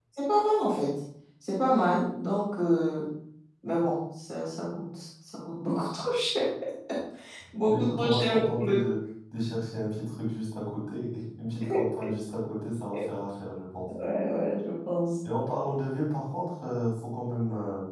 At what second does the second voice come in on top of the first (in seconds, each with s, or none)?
7.7 s